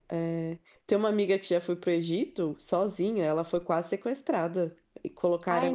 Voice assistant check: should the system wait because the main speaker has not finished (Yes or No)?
Yes